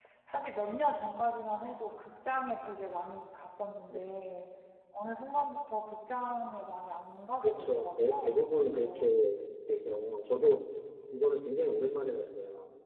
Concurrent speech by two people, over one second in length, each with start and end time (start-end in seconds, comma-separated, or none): 7.4-9.1